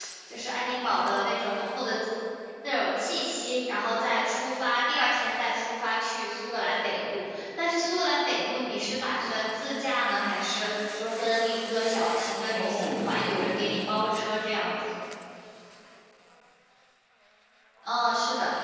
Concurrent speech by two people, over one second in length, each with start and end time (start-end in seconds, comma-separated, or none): 12.5-14.1